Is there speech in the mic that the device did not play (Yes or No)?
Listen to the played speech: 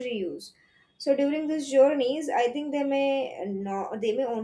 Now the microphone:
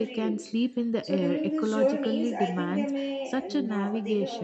Yes